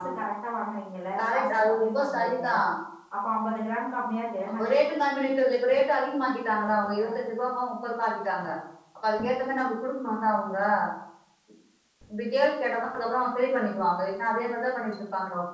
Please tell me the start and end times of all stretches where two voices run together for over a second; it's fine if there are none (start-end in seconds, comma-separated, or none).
1.2-2.5